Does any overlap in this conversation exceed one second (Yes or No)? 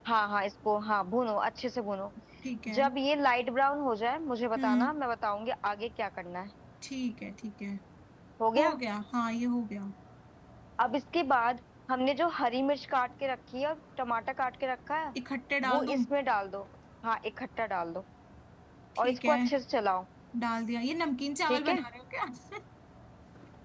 No